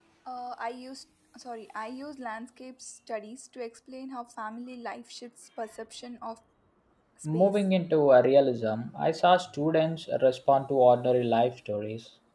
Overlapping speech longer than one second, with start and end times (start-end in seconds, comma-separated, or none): none